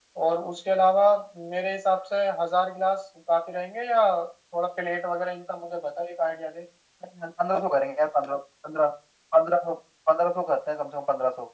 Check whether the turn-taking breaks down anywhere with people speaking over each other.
No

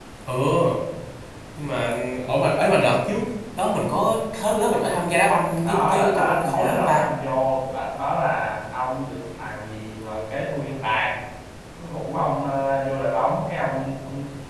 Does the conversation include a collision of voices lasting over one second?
Yes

